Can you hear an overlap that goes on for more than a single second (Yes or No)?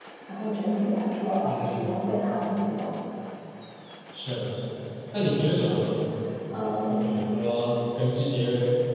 No